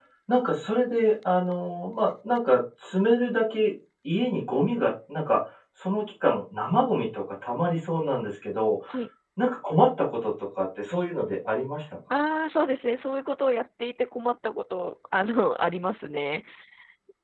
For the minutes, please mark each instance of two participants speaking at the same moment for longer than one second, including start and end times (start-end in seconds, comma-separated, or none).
none